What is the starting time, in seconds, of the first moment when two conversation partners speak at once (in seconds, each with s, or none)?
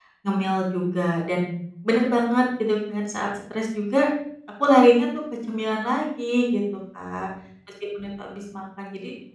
none